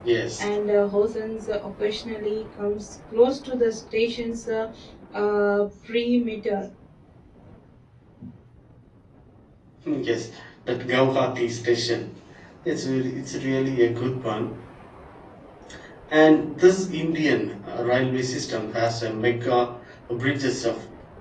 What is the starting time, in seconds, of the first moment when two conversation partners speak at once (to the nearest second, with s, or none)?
none